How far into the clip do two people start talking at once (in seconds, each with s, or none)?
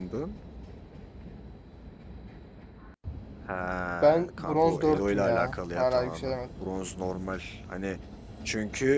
4.0 s